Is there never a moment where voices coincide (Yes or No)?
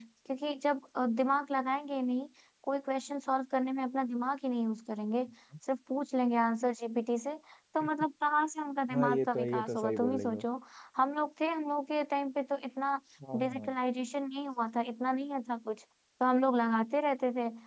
No